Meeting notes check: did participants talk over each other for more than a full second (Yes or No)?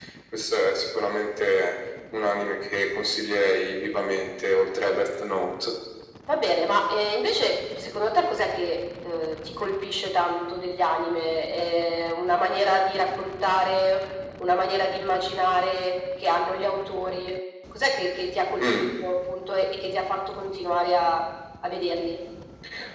No